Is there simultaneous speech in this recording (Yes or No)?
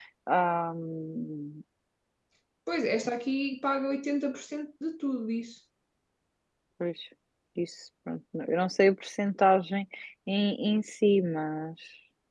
No